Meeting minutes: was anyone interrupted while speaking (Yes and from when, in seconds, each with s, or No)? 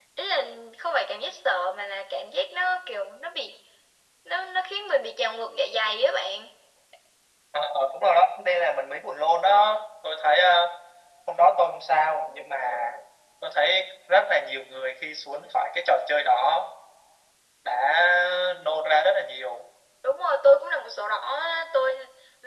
No